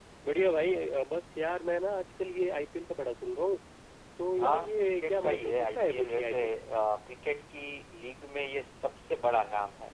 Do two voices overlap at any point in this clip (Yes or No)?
Yes